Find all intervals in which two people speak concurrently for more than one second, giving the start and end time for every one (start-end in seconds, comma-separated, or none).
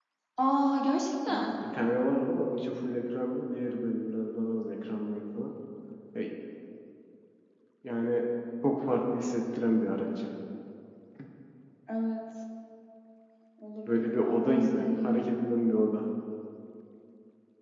13.9-15.3